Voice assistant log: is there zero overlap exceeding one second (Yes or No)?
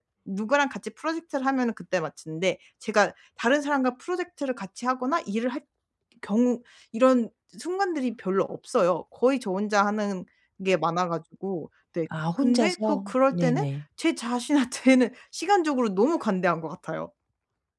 No